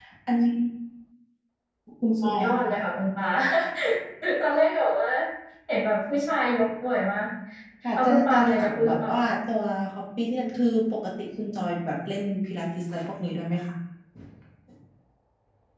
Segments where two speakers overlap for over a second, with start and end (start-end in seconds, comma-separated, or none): 7.9-9.3